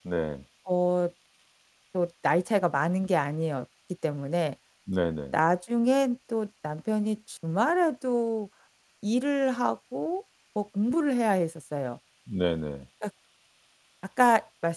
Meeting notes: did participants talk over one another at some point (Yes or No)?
No